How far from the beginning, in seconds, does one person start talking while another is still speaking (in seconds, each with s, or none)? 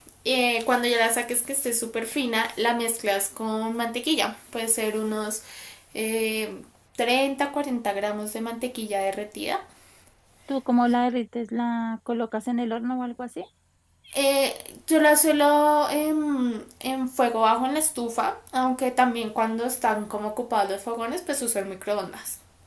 none